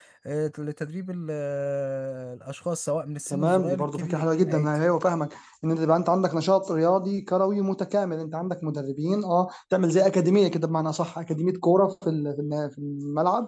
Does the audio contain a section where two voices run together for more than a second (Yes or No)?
Yes